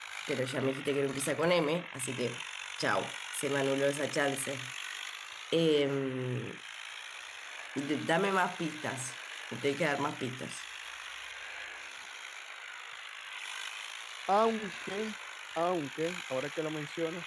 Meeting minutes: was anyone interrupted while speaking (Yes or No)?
No